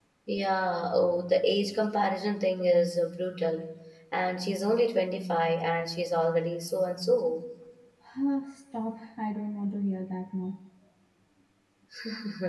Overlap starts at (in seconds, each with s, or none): none